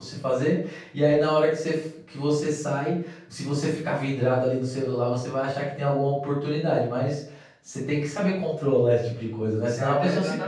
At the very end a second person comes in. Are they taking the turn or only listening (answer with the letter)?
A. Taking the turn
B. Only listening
A